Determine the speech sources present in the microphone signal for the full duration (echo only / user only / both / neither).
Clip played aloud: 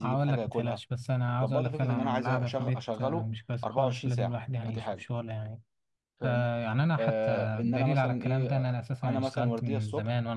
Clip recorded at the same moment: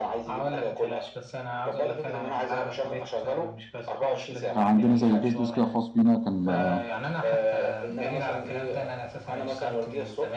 both